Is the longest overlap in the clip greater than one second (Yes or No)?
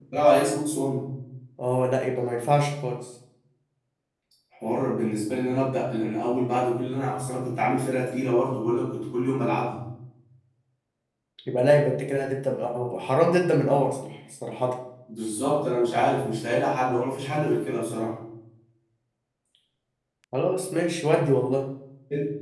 No